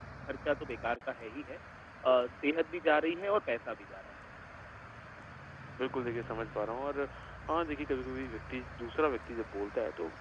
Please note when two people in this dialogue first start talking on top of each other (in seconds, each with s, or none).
none